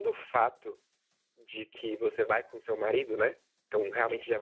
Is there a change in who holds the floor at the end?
No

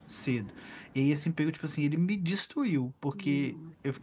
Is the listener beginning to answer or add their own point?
No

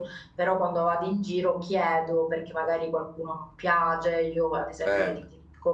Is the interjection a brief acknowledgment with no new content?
Yes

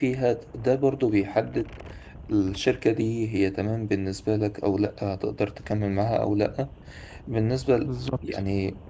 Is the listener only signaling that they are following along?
Yes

